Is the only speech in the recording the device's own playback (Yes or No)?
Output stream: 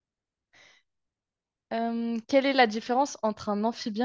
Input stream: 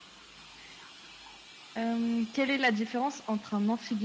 Yes